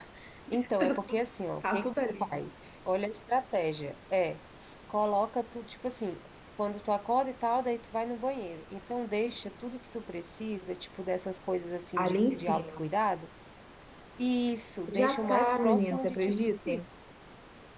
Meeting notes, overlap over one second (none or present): present